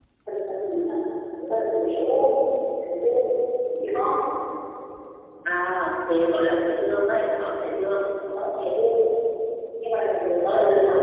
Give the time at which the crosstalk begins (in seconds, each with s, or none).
none